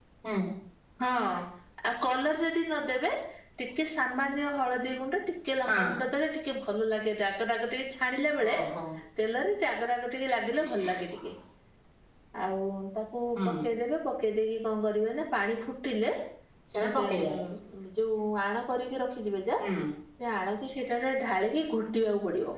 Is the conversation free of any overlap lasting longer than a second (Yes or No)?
Yes